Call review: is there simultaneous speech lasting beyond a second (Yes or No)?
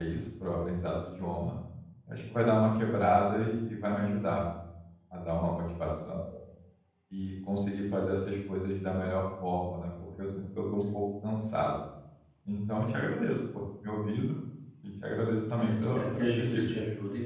Yes